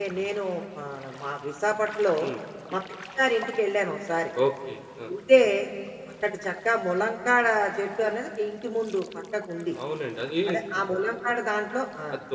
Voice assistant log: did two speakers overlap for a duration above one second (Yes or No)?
No